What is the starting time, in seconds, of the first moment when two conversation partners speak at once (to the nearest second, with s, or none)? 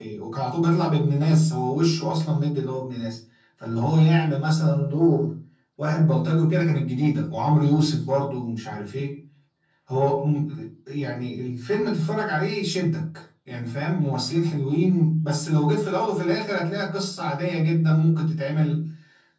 none